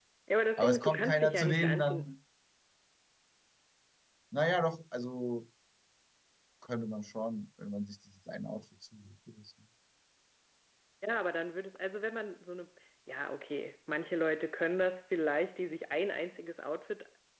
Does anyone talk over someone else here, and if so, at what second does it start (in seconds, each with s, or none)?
0.6 s